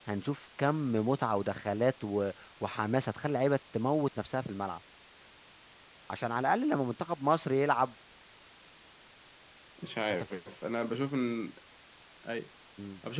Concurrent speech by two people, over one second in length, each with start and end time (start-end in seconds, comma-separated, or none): none